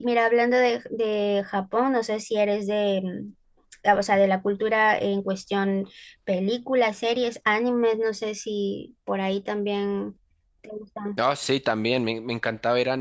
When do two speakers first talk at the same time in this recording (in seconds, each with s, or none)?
none